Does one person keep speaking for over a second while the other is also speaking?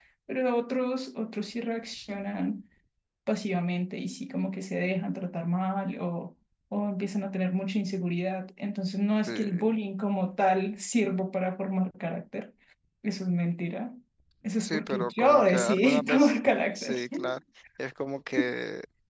Yes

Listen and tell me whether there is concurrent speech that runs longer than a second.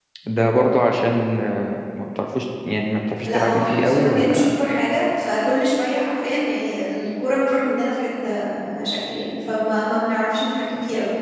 Yes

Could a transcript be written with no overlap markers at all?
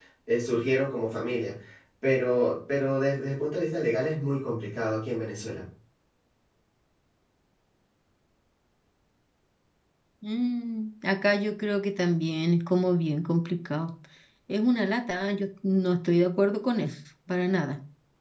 Yes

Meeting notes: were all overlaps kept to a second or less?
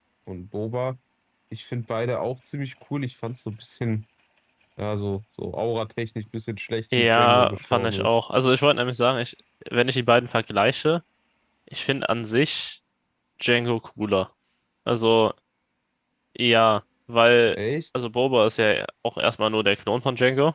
No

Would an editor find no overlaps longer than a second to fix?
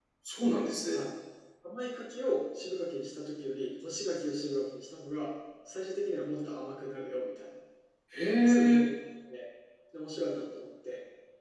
Yes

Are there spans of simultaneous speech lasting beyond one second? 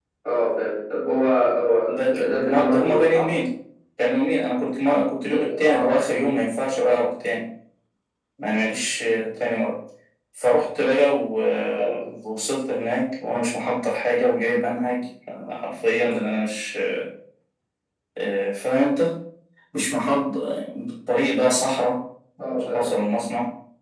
Yes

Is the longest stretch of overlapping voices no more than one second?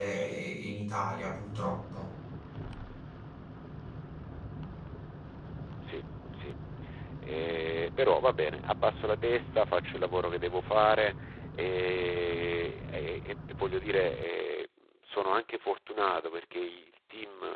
Yes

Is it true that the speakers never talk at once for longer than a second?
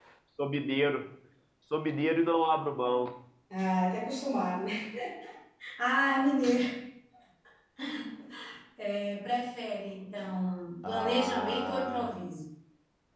No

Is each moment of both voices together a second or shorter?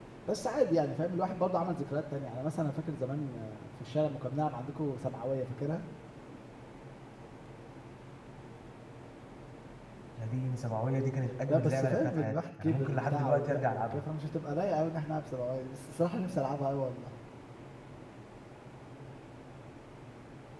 No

